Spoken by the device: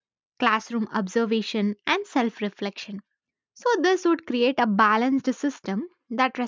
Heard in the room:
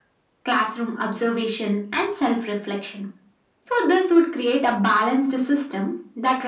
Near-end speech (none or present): none